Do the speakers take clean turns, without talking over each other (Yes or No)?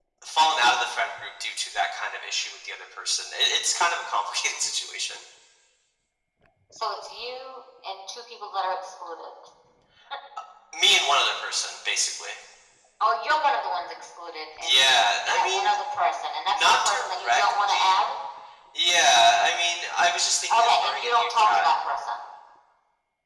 No